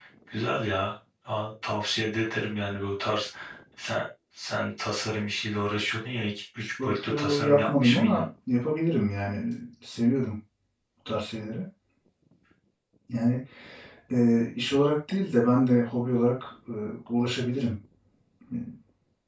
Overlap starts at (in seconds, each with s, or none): 6.6 s